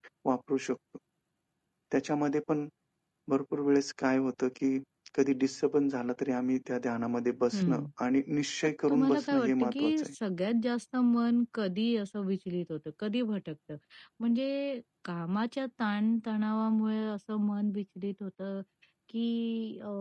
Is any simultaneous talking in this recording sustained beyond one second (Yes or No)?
Yes